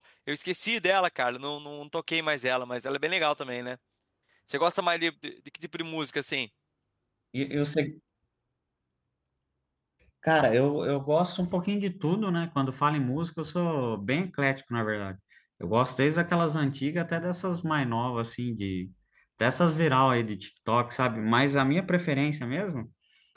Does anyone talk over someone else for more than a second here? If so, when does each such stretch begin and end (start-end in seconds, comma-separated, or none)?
none